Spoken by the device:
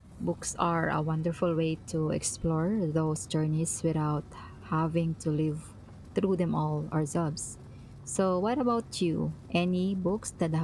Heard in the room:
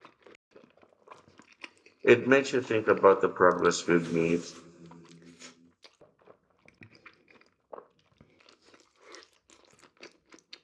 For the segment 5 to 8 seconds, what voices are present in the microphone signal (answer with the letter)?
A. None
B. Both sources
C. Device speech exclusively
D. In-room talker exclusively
A